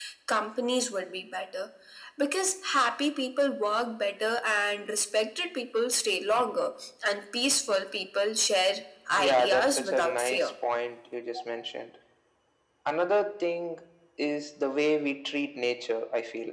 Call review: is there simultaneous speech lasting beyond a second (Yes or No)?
Yes